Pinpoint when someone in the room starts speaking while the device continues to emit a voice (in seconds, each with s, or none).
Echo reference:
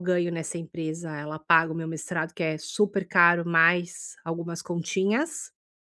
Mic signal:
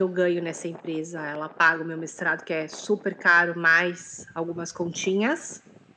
none